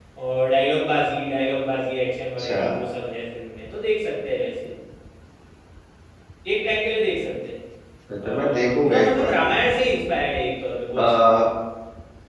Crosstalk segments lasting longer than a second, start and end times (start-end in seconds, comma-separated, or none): 8.2-9.5